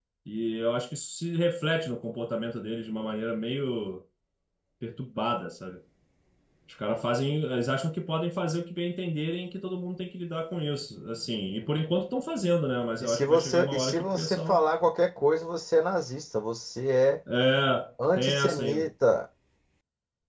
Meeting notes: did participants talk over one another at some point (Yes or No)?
Yes